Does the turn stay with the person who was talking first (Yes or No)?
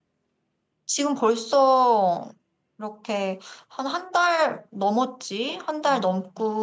Yes